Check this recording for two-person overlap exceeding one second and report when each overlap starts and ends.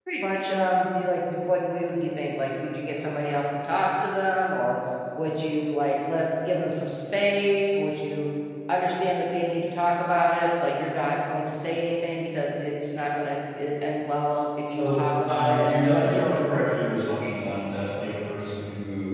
14.7-16.4

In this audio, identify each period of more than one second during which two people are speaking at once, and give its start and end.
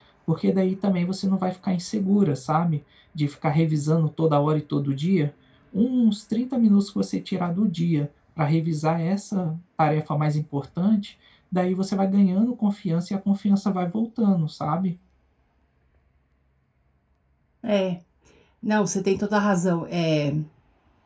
none

